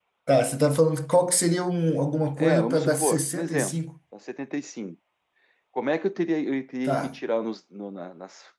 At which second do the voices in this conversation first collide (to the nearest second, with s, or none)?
2 s